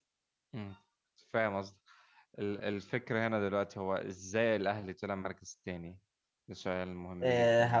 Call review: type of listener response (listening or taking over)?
taking over